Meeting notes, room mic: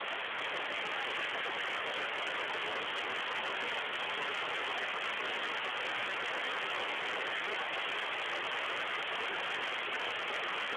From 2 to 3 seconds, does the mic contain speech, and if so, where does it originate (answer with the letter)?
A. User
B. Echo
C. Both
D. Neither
D